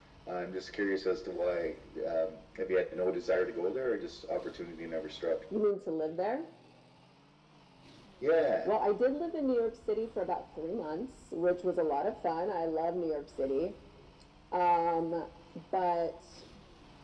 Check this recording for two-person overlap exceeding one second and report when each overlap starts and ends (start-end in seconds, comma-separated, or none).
none